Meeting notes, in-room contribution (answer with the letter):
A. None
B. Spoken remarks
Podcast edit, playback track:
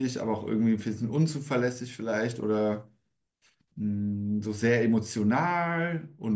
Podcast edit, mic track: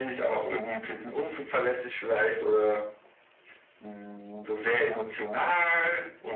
A